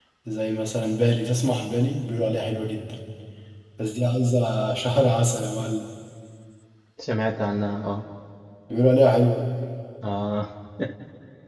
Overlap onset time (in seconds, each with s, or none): none